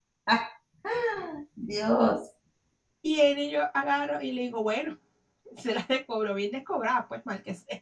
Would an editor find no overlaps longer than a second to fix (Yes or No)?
Yes